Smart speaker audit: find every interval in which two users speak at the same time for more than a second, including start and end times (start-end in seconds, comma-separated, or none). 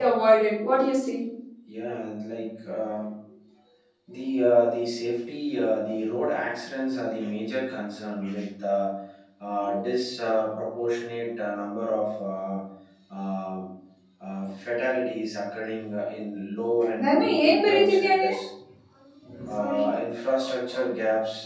17.0-18.4